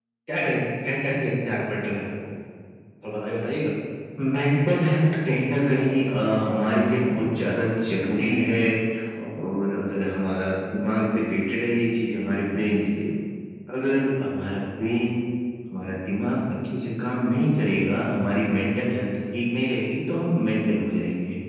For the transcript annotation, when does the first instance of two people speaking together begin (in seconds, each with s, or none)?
none